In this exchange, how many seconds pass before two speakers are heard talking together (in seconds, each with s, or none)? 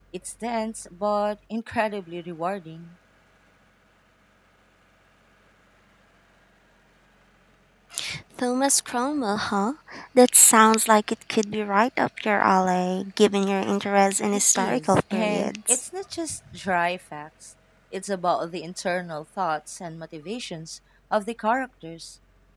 14.3 s